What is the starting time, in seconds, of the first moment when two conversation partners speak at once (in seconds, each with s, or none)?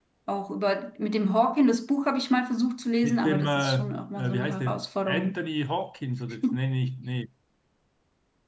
3.0 s